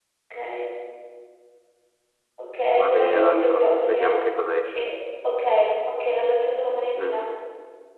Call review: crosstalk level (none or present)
present